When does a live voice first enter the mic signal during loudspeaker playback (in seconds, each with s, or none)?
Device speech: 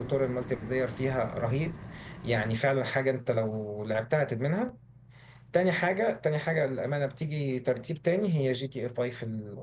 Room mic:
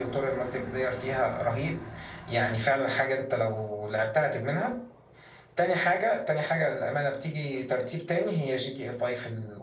none